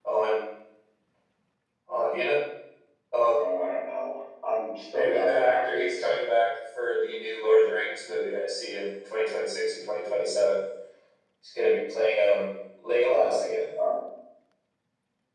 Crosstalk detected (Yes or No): Yes